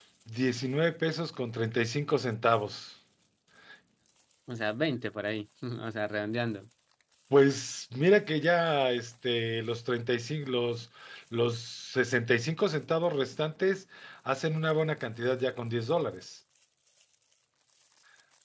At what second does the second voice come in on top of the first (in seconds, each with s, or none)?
none